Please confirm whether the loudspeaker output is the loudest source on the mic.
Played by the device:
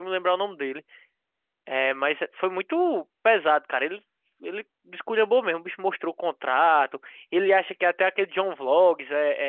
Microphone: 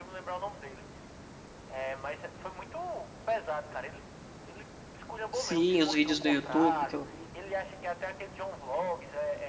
No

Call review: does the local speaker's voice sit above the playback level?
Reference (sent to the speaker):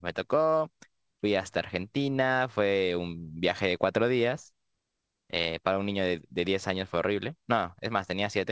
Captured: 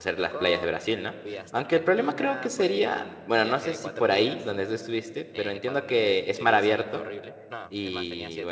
Yes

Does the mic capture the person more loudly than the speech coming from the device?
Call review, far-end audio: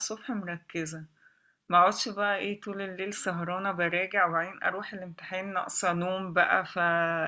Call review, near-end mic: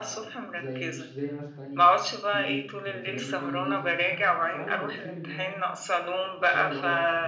No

